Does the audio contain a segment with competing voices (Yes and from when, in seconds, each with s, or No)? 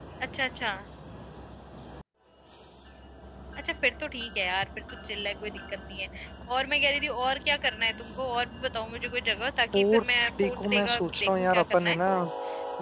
Yes, from 9.7 s